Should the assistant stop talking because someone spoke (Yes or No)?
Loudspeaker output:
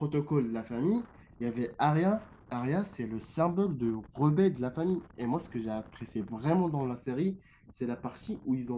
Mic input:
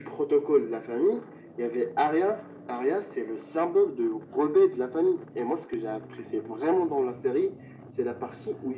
No